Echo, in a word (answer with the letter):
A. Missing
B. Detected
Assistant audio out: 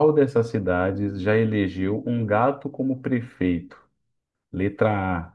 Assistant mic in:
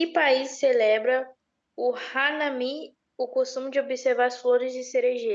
A